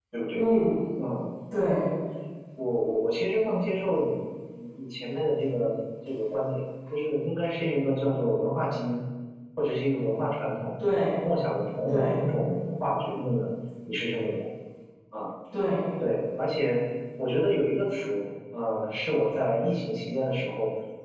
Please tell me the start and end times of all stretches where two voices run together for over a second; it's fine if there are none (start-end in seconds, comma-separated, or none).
none